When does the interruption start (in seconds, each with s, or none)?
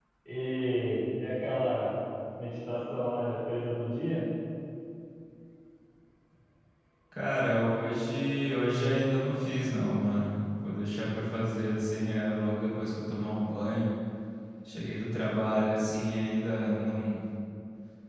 none